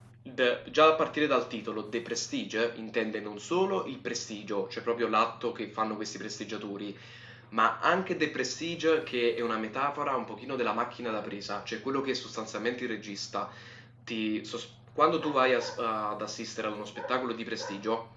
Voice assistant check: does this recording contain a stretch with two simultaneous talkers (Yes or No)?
No